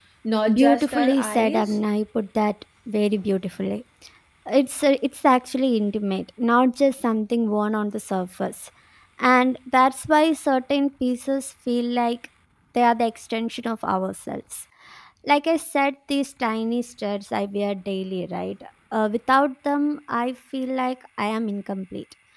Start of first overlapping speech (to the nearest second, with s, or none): 1 s